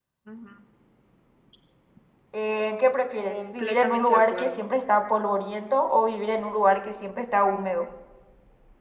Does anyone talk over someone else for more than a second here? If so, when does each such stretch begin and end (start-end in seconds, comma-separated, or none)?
3.2-4.6